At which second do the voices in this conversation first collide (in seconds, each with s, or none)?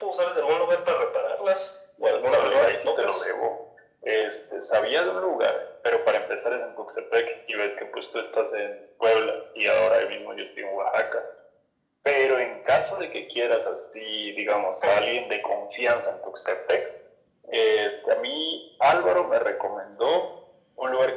2.0 s